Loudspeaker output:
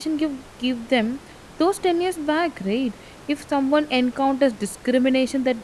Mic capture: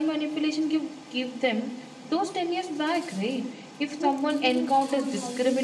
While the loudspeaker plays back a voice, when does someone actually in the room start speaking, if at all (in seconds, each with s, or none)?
3.9 s